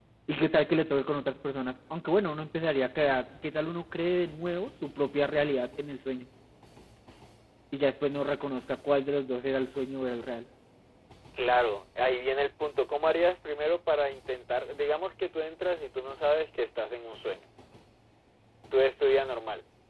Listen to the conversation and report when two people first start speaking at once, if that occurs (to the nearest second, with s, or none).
none